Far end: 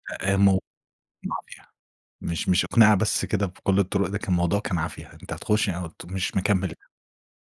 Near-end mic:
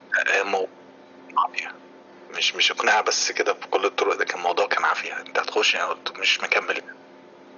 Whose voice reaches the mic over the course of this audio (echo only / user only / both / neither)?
echo only